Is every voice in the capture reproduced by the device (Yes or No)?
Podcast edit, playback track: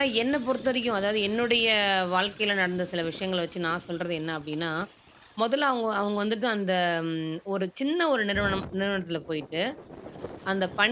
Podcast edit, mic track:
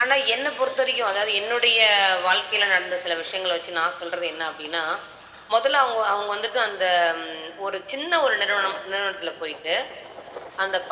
Yes